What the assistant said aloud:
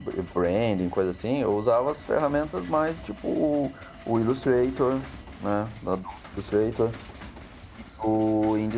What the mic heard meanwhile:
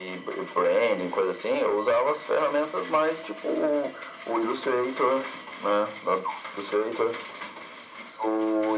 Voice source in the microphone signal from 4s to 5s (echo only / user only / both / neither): echo only